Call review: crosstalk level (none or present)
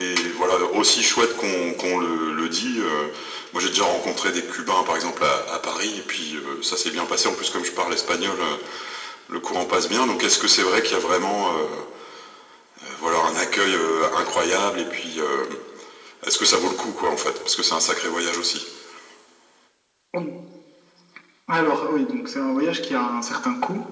none